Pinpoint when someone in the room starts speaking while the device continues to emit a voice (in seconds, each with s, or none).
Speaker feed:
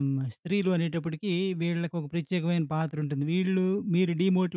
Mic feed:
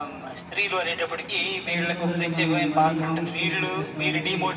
1.4 s